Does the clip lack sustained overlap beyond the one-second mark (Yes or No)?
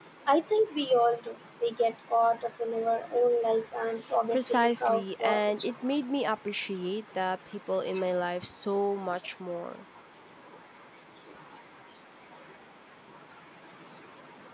No